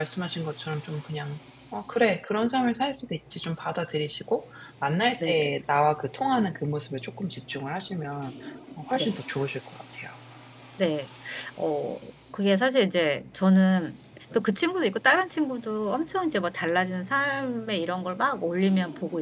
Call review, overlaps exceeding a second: none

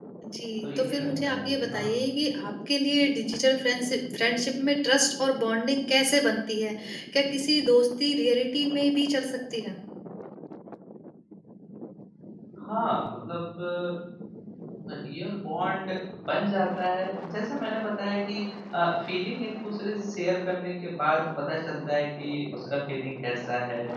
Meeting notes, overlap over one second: present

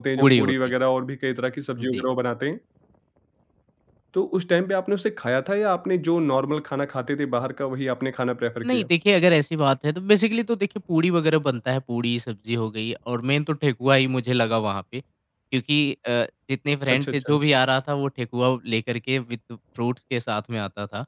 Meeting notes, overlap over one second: none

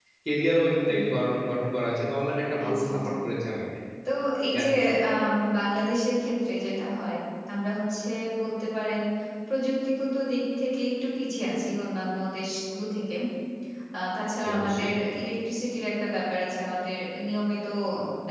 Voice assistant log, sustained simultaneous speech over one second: none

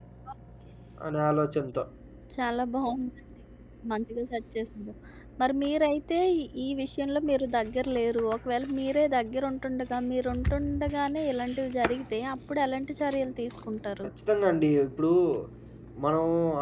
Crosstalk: none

